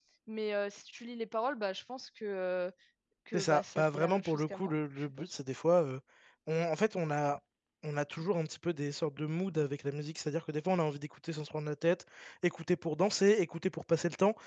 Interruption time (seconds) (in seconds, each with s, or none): 3.3 s